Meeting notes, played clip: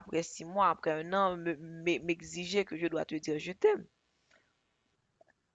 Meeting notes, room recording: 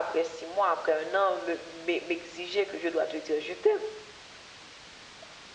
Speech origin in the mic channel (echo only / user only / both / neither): echo only